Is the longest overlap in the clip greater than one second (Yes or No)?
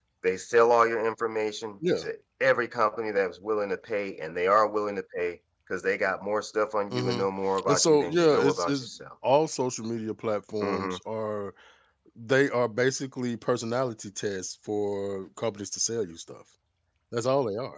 Yes